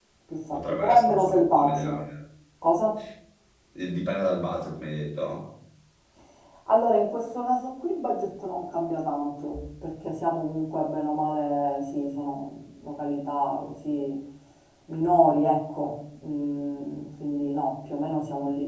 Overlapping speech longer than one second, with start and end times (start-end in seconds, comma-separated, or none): 0.5-2.0